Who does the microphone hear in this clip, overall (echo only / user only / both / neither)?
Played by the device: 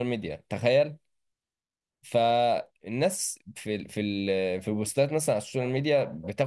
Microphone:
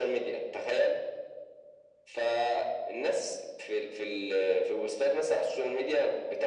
echo only